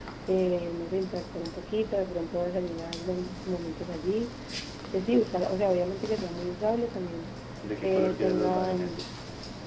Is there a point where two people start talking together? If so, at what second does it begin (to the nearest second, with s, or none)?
8 s